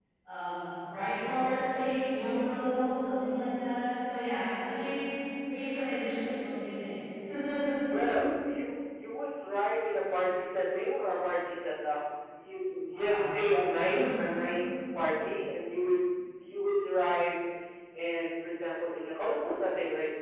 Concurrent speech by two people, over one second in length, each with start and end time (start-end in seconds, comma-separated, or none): none